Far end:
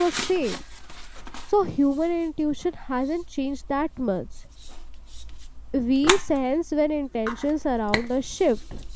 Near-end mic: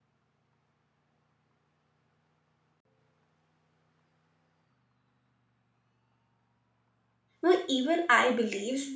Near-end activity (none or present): present